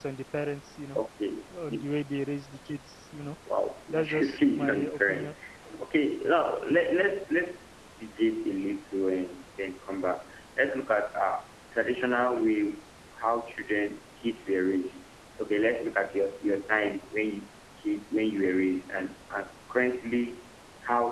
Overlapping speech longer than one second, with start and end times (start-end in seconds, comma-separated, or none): 3.9-5.3